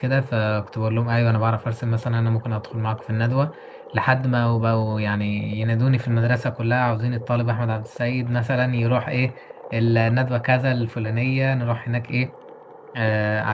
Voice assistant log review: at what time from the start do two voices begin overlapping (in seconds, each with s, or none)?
none